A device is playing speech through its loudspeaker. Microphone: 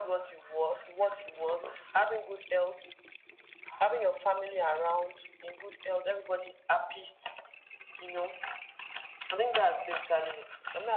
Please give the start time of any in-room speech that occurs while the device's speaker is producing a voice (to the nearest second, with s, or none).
none